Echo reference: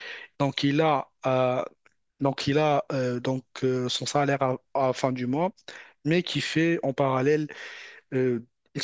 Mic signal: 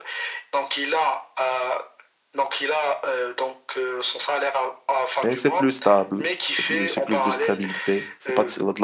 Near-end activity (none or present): present